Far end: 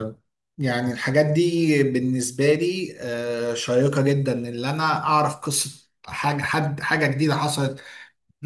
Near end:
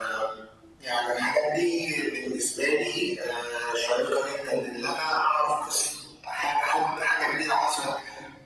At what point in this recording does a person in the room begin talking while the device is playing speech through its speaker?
none

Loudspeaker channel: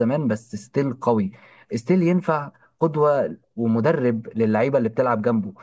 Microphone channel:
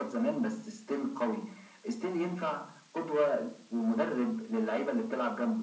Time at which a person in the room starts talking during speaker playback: none

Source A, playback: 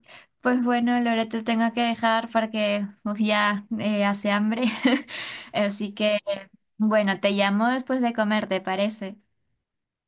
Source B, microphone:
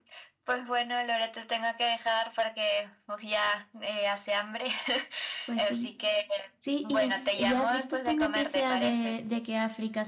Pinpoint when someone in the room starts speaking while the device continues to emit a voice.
5.4 s

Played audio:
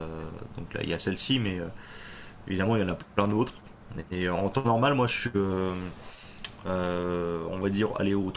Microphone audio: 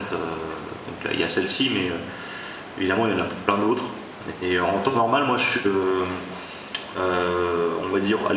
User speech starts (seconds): none

